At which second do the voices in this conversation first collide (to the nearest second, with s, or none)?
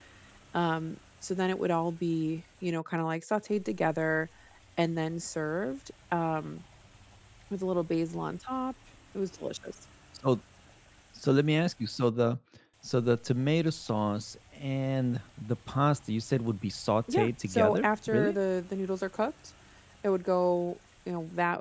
17 s